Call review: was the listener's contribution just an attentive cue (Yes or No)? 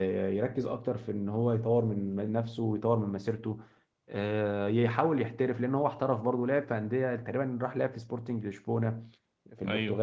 Yes